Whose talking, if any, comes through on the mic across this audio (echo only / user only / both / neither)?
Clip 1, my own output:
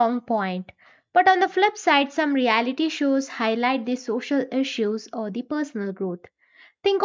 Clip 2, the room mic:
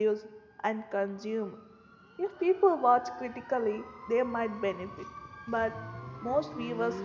user only